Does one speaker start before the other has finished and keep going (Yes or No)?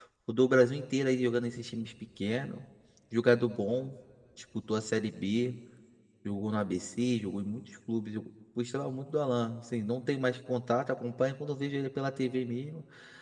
No